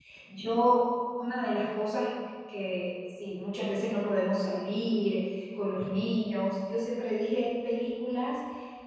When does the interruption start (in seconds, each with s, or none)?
none